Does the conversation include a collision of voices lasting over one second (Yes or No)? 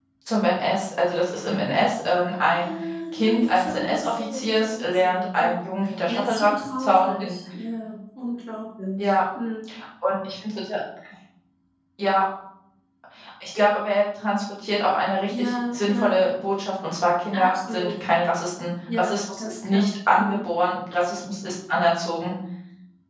Yes